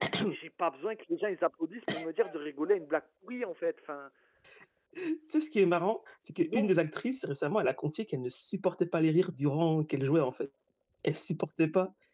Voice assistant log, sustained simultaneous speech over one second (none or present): none